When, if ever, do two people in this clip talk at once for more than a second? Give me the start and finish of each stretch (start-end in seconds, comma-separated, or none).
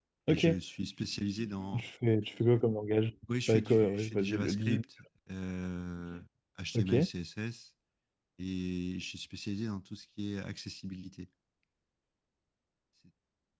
3.5-4.8